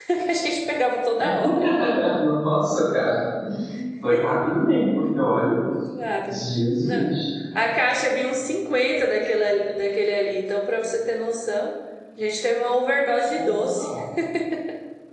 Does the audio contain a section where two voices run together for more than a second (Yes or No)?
No